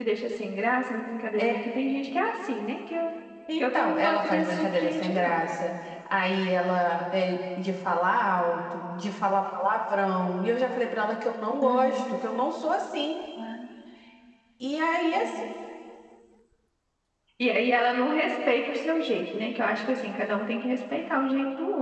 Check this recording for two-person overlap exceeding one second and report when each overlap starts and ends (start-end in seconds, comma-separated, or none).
3.6-5.4